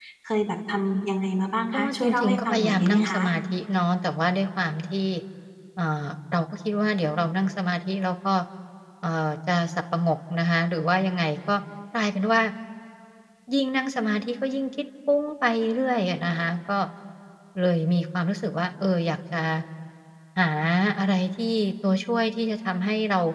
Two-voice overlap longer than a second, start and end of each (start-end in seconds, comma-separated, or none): 1.7-3.3